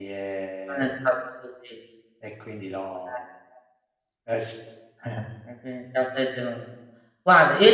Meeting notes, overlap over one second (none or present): none